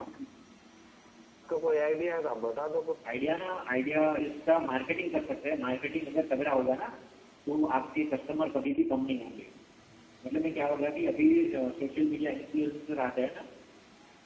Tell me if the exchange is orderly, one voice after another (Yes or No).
Yes